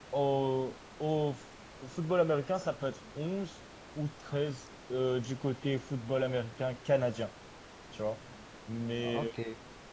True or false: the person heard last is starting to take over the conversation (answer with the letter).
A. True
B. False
B